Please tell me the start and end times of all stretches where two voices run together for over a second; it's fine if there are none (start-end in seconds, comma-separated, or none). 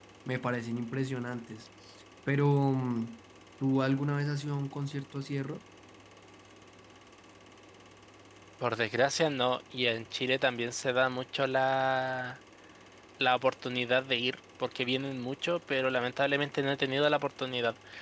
none